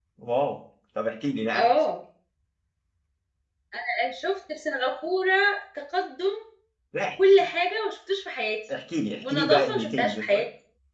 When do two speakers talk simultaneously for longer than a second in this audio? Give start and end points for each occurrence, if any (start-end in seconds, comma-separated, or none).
9.2-10.4